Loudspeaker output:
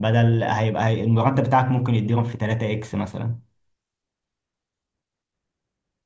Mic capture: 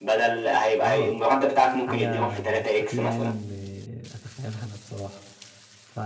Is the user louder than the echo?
No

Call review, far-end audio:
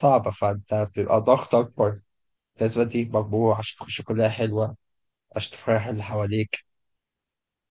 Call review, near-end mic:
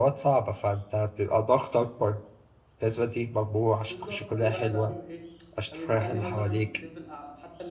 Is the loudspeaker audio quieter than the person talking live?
No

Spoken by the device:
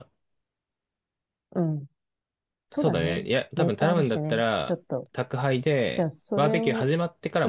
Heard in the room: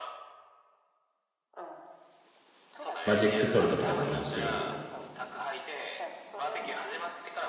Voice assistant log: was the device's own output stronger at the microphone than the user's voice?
No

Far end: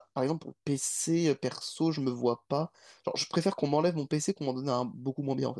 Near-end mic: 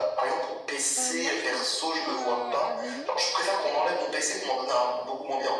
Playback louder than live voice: Yes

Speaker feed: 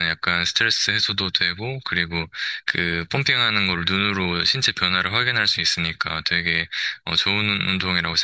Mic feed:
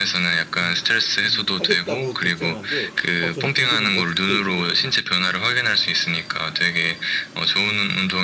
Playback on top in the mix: Yes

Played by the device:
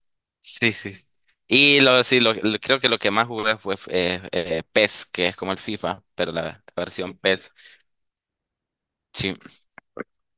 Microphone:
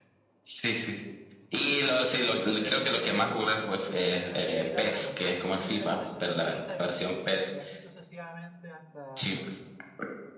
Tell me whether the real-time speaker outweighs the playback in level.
No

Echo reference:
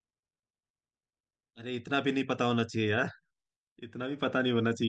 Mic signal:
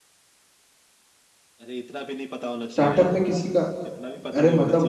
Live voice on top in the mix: Yes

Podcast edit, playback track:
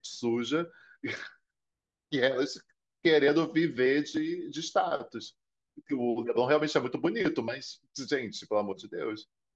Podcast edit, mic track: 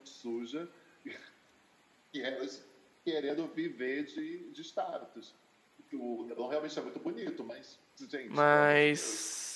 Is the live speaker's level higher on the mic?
Yes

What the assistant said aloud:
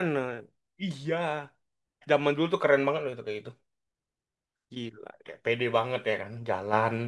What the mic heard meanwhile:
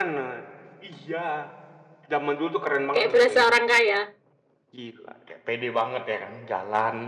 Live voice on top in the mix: Yes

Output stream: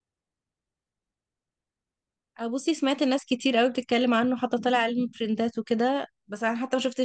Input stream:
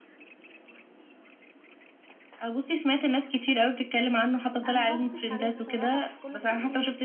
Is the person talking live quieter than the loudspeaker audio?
Yes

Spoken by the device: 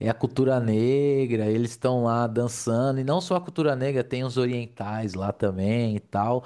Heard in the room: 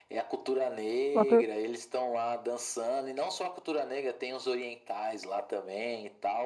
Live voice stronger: Yes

